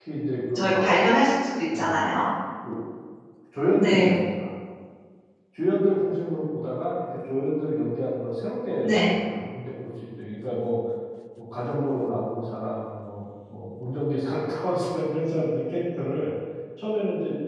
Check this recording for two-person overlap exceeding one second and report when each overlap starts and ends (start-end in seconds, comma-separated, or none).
none